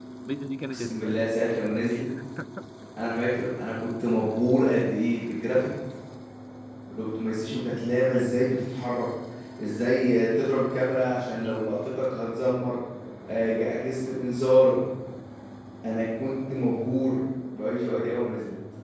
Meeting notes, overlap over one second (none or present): none